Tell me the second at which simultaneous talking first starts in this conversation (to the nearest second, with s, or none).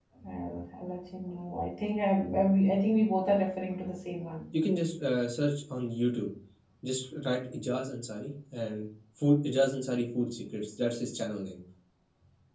none